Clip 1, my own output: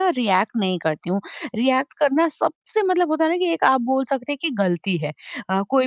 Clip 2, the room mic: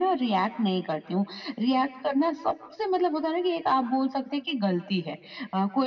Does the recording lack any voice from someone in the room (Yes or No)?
Yes